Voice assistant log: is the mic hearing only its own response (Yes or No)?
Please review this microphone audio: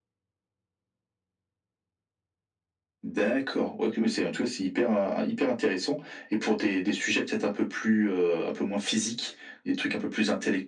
Yes